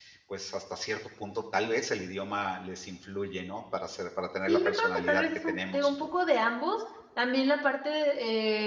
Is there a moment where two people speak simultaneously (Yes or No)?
Yes